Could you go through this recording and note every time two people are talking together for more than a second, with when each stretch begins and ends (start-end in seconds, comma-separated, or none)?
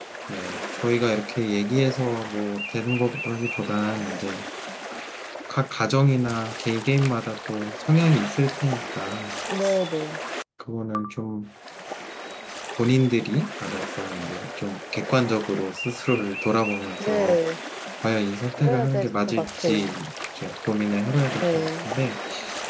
18.6-19.9